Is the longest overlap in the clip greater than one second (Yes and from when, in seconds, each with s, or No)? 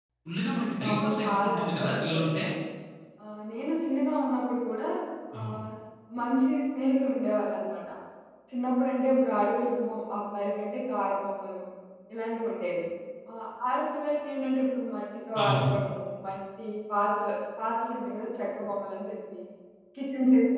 Yes, from 0.9 s